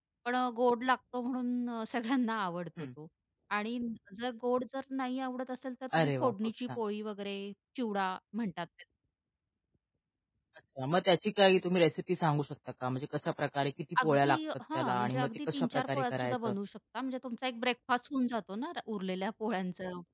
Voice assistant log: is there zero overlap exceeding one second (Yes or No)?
No